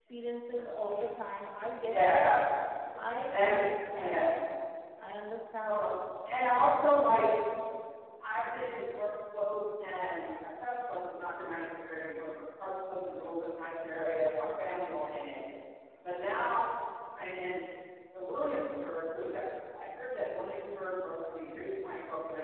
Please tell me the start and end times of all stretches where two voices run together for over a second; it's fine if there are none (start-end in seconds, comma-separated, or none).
none